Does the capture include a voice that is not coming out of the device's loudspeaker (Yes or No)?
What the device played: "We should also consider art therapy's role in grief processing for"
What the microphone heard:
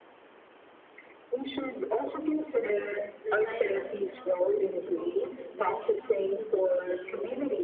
Yes